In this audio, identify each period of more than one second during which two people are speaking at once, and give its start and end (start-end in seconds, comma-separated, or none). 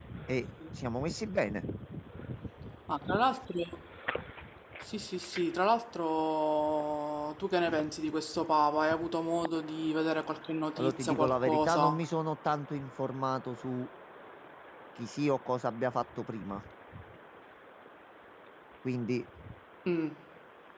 10.8-12.0